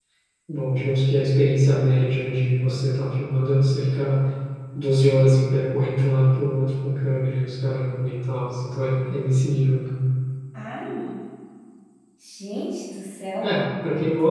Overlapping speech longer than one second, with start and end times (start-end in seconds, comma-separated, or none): none